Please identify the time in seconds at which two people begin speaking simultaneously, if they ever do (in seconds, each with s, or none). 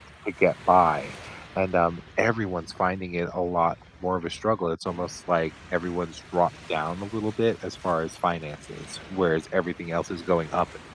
none